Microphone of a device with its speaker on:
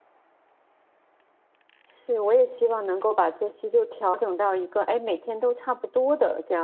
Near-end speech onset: 2 s

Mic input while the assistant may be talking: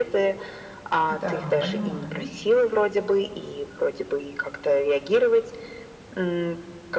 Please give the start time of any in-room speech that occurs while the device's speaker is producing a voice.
1 s

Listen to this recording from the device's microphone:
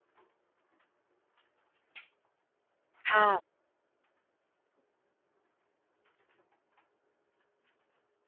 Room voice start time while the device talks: 3 s

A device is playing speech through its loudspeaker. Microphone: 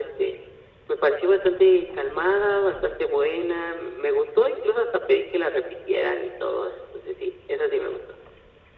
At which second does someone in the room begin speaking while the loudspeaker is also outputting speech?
none

